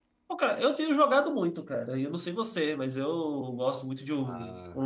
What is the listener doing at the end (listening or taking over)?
listening